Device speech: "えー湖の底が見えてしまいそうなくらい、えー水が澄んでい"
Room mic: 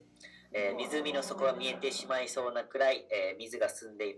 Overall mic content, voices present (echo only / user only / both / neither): both